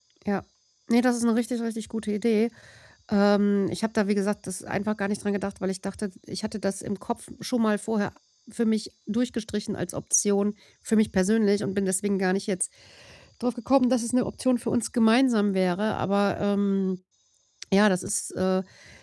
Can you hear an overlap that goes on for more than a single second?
No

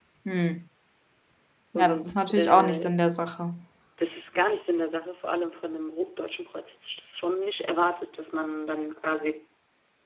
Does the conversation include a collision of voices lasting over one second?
Yes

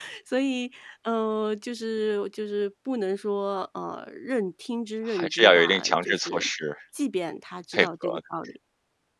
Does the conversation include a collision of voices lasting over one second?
Yes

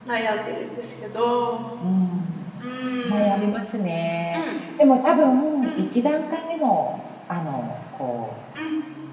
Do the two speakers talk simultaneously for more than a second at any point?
No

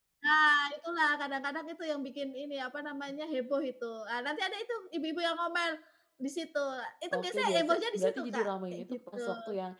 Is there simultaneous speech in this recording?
Yes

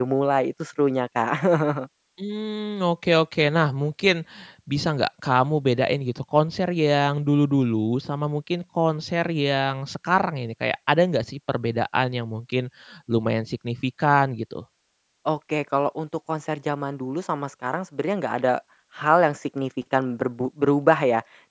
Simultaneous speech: No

